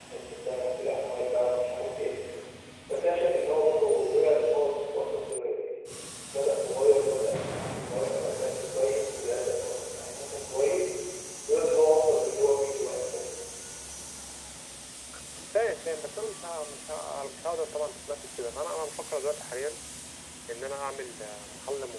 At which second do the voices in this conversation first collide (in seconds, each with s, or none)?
none